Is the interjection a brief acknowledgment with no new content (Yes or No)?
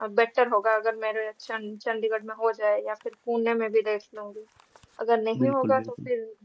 Yes